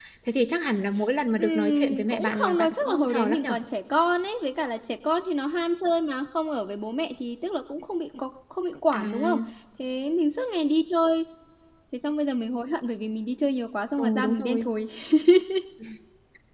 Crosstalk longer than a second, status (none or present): present